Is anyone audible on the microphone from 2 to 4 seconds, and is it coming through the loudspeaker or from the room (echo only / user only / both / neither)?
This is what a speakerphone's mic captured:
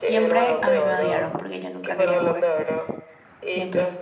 both